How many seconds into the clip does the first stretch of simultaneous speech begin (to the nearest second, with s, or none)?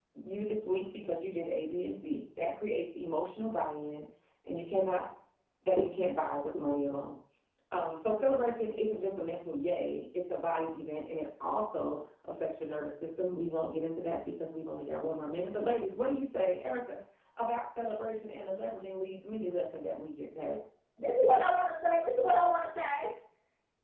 none